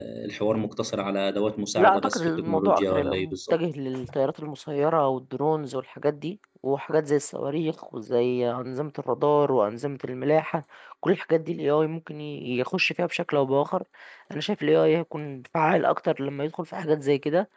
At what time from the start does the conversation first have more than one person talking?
1.8 s

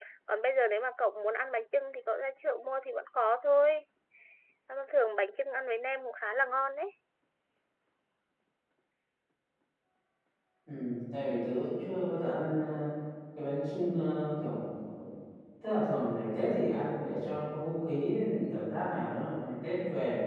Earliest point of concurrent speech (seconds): none

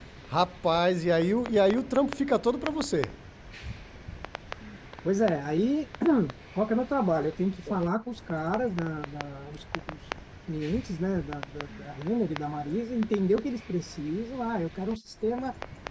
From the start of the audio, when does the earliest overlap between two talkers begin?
none

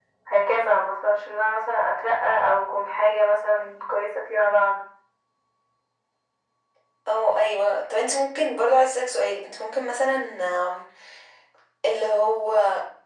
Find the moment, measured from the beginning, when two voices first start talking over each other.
none

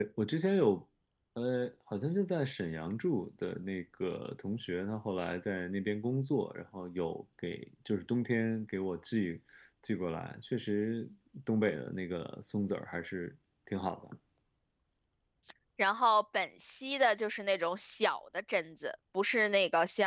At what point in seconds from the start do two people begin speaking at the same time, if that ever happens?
none

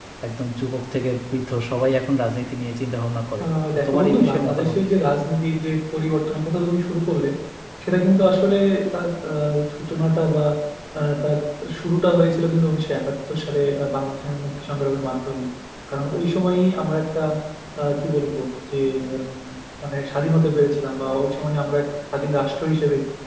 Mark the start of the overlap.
3.4 s

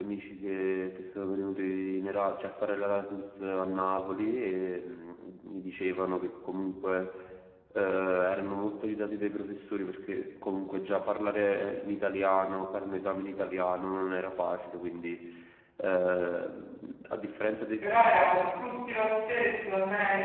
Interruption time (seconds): none

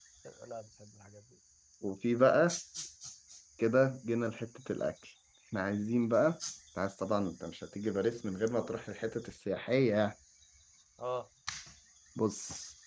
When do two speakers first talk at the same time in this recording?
none

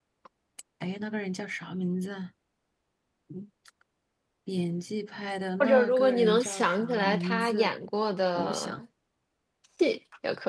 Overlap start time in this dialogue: 5.6 s

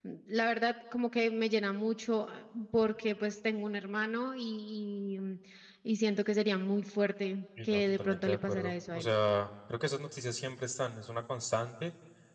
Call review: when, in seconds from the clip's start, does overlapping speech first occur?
7.6 s

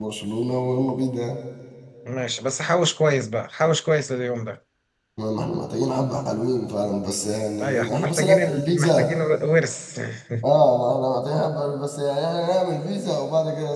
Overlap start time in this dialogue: 7.6 s

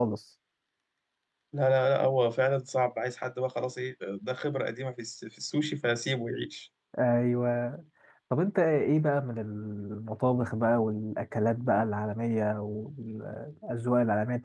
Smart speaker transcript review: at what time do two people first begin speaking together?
none

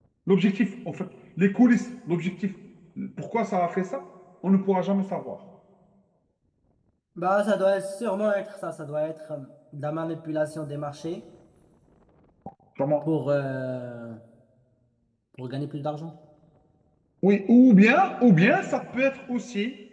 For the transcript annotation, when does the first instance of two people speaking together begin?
none

